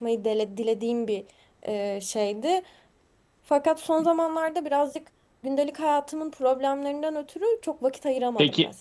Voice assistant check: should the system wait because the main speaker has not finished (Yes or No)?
No